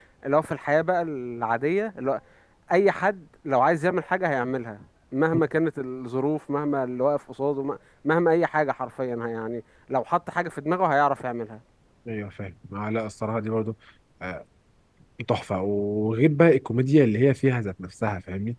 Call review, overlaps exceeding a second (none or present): none